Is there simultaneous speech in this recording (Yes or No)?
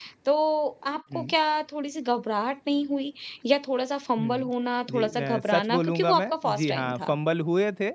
Yes